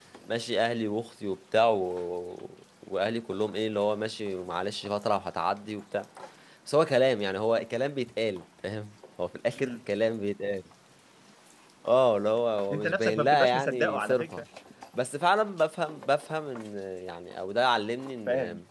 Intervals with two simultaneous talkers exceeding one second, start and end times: 12.7-14.4

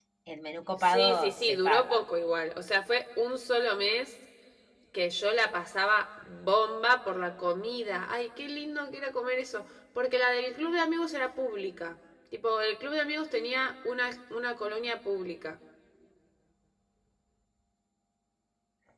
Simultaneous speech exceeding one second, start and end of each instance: 0.8-2.0

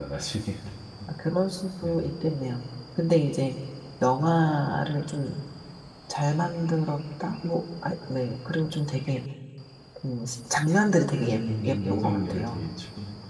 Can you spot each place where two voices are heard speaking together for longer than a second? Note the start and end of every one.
11.2-12.6

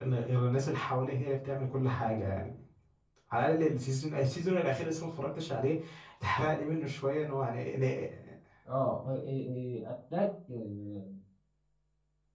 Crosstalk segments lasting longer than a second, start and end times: none

